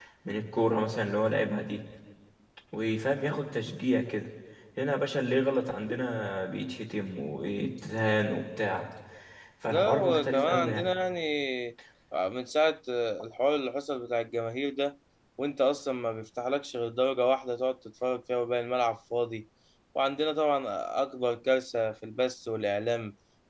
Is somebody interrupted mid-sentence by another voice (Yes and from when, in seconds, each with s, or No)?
Yes, from 9.7 s